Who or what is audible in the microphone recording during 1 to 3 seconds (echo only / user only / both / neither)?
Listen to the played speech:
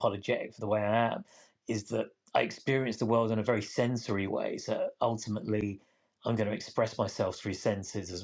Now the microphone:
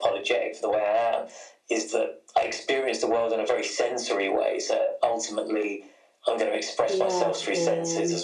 echo only